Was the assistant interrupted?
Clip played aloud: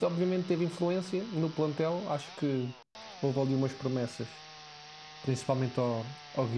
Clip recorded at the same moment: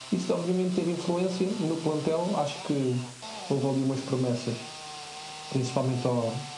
No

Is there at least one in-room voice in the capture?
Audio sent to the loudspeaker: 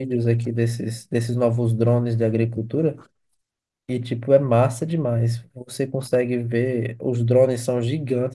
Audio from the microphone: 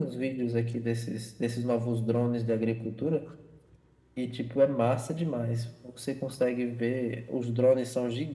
No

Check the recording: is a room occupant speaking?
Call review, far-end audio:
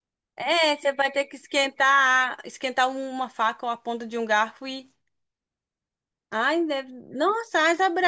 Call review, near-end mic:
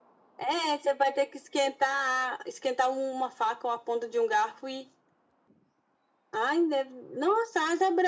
No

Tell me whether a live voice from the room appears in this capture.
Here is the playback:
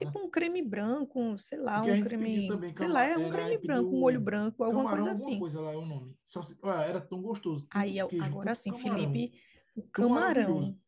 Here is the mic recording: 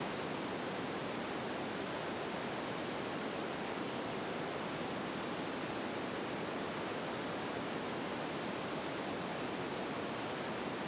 No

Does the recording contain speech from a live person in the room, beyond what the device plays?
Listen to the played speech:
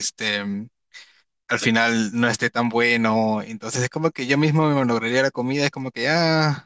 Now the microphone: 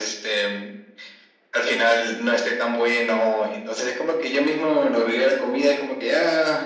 No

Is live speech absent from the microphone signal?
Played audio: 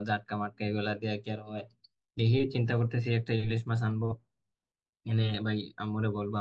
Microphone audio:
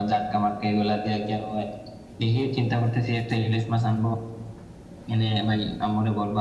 Yes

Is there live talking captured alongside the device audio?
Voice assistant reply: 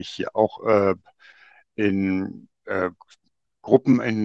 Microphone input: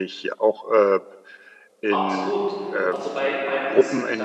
Yes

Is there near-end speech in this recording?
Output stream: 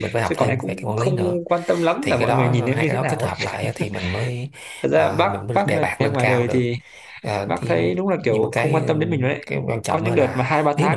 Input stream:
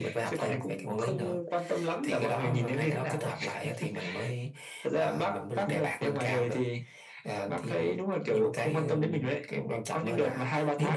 No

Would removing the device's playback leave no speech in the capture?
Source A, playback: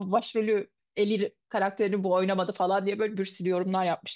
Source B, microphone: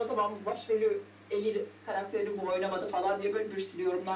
Yes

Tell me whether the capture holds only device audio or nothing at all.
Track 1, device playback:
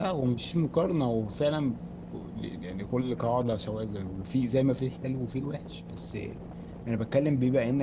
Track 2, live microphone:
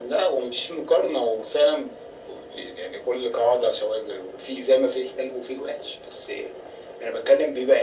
Yes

